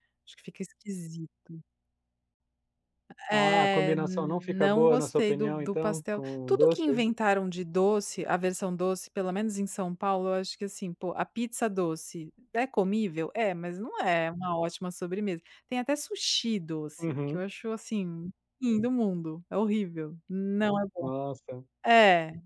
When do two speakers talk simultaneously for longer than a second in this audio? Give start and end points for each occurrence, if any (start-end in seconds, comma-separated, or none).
3.3-7.0